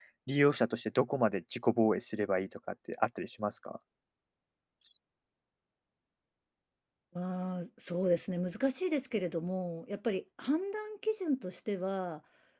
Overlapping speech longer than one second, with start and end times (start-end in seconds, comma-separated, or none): none